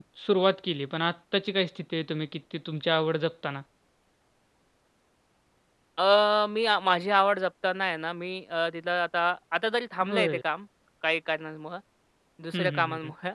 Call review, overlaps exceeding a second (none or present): none